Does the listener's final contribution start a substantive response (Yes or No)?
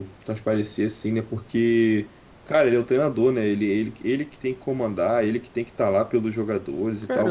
Yes